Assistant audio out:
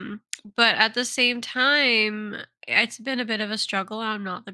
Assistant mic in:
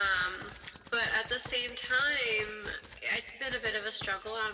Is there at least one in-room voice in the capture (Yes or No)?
No